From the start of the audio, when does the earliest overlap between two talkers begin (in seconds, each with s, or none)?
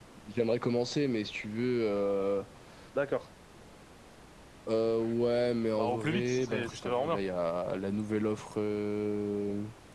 5.7 s